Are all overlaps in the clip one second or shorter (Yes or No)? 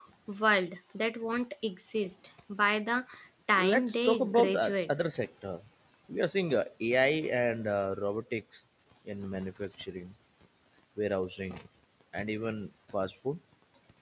No